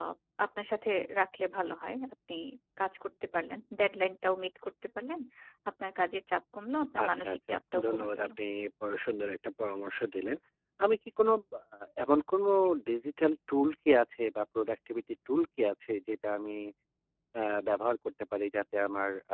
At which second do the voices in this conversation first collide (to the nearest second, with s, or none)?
7 s